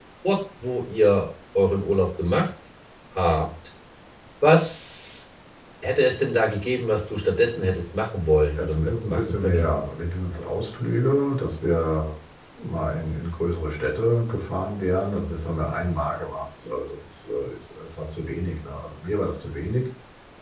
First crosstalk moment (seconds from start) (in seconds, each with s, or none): 8.5 s